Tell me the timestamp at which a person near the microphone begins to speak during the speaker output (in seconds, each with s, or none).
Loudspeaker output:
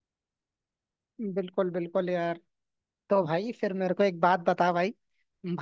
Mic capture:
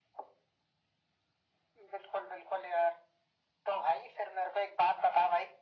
none